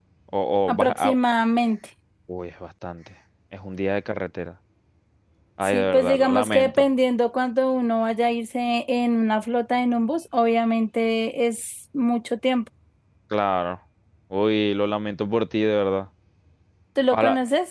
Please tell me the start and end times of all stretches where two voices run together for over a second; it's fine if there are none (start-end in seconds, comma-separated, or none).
5.6-6.9